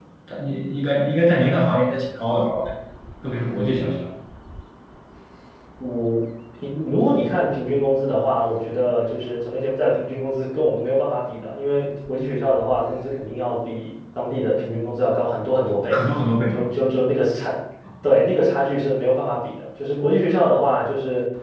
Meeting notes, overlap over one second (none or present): none